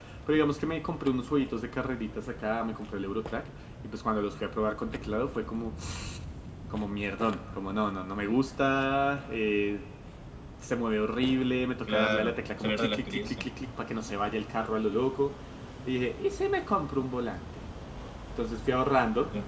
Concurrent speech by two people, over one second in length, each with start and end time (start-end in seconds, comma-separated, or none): 11.8-13.4